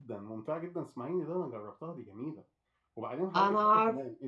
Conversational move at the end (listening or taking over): listening